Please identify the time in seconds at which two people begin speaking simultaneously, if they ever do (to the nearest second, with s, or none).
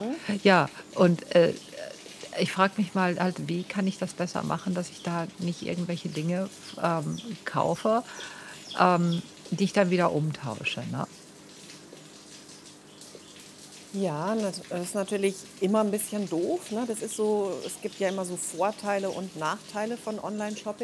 none